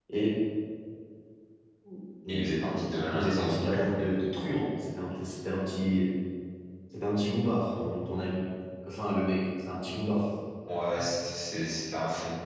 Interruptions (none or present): present